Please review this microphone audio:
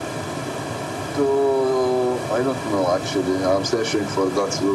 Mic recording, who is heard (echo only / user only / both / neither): echo only